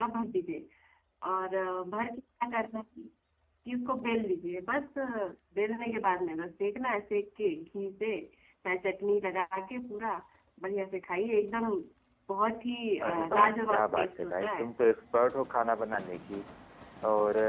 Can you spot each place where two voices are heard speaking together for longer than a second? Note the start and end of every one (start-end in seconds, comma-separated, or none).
13.0-14.6